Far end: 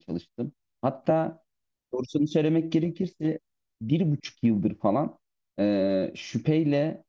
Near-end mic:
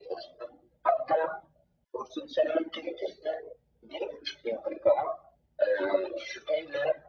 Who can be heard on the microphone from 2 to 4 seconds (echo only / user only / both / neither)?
echo only